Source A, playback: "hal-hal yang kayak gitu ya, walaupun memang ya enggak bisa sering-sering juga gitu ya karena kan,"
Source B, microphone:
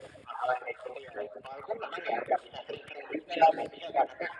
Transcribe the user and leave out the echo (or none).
none